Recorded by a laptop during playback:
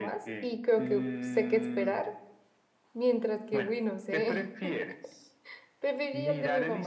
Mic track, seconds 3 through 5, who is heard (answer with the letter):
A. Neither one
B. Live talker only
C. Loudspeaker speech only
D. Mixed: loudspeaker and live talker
D